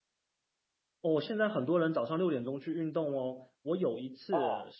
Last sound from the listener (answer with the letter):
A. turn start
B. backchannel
B